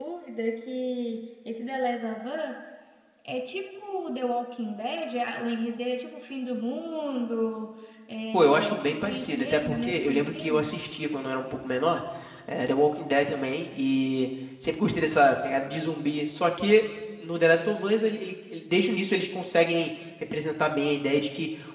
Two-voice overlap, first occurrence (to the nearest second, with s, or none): 8 s